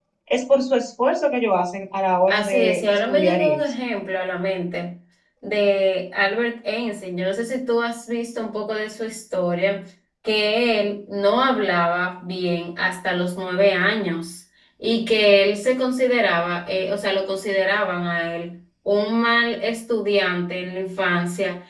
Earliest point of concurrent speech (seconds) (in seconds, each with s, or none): 2.3 s